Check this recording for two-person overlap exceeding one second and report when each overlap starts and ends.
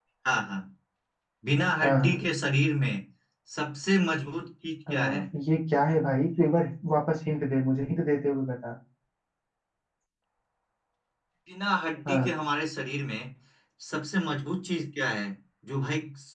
none

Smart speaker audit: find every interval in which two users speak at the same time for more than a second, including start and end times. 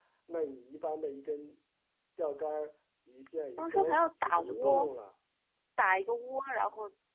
3.6-4.9

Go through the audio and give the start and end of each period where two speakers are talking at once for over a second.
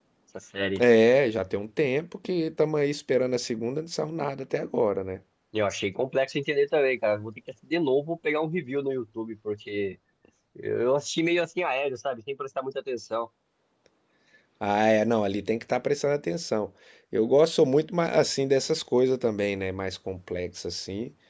none

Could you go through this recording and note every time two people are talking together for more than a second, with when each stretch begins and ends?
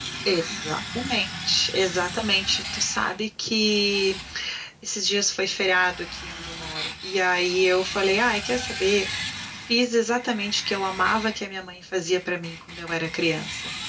none

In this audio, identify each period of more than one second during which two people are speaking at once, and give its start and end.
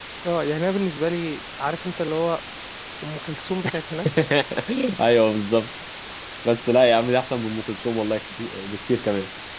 none

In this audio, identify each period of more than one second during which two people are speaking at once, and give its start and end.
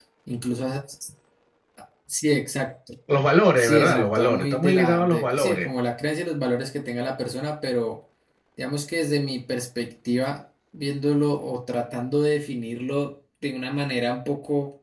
3.6-5.7

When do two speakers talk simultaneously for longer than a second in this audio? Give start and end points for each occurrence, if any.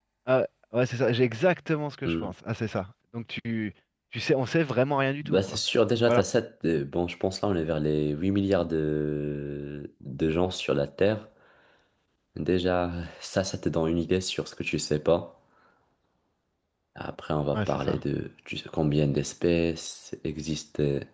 none

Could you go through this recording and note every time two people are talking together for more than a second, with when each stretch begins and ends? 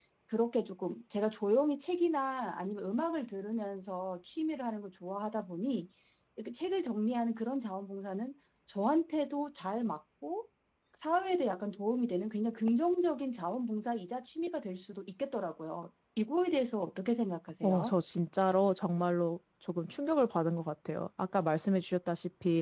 none

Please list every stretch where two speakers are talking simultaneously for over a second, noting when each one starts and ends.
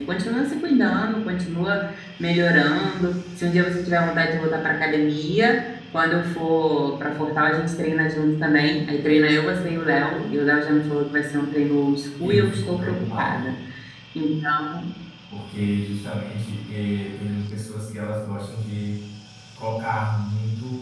12.2-13.5

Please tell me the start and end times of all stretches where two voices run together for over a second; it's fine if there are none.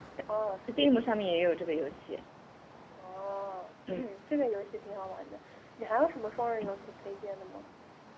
none

